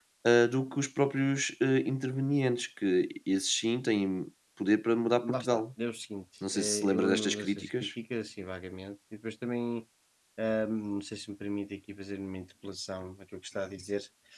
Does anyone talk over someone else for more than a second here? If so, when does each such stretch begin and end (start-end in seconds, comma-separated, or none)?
6.5-7.9